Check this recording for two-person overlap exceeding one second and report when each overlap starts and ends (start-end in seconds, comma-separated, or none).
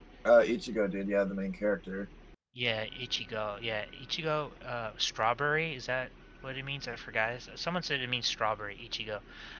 none